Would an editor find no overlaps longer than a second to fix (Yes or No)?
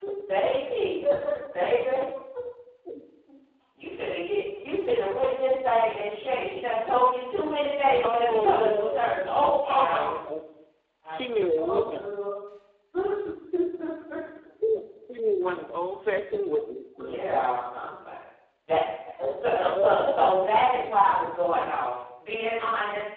No